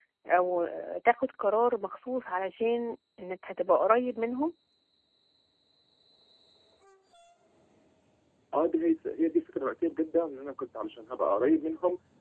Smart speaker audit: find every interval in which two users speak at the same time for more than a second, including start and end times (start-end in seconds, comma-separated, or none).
none